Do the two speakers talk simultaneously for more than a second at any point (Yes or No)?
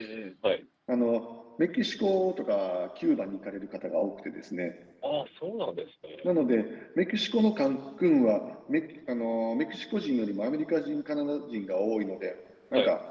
No